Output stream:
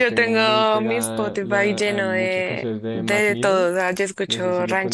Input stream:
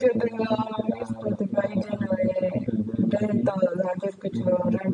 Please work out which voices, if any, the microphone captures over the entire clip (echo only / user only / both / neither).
echo only